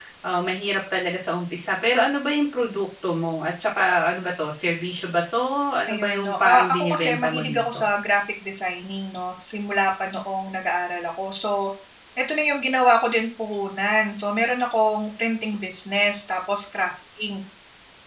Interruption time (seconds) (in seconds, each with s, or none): 5.8 s